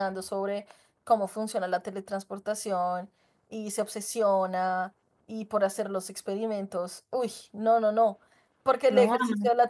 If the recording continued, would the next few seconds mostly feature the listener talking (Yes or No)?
No